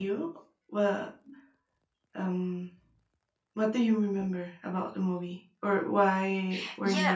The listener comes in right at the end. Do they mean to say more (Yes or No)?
Yes